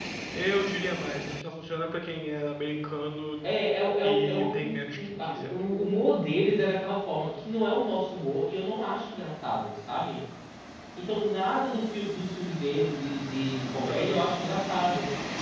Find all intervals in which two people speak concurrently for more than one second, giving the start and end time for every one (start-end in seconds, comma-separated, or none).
4.0-5.5